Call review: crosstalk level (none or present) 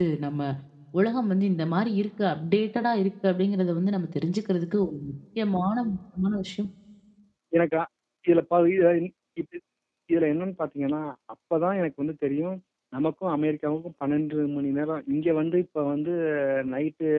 none